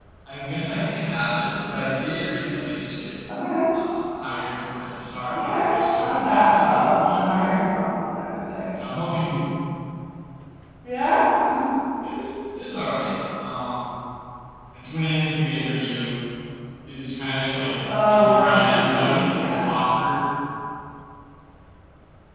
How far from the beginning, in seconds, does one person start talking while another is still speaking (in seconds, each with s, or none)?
5.3 s